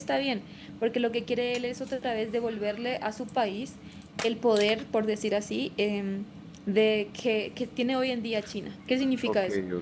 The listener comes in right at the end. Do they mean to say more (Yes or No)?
Yes